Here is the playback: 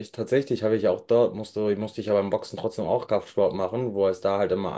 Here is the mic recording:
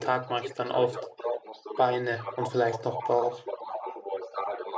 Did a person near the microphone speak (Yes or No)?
Yes